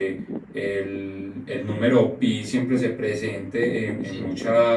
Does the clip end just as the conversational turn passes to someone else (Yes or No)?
No